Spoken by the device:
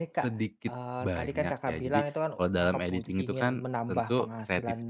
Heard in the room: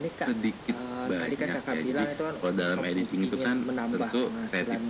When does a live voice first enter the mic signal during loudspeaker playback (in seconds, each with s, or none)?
none